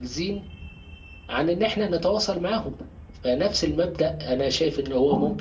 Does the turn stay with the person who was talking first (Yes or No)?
Yes